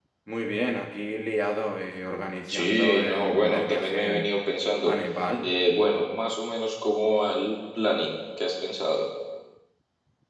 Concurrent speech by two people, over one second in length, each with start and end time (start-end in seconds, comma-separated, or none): 2.5-4.3